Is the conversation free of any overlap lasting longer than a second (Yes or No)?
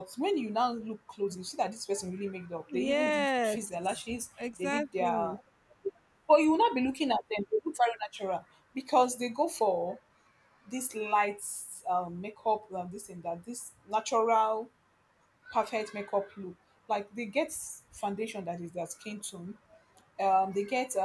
No